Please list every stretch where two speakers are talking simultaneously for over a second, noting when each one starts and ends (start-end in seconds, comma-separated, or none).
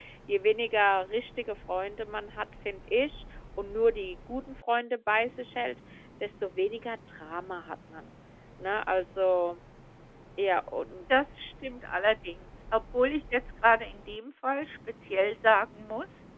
none